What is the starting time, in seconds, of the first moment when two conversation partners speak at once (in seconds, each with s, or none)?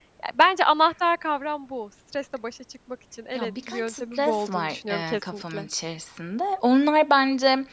3.4 s